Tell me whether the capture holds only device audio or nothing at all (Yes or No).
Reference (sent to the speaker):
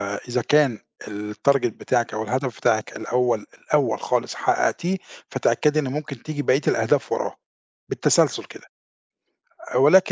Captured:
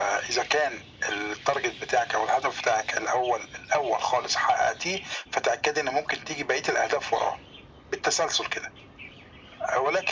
Yes